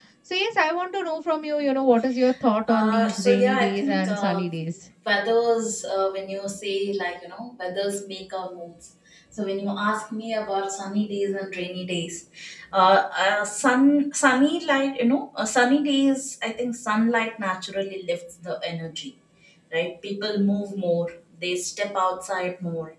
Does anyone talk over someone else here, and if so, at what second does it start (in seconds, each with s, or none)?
2.7 s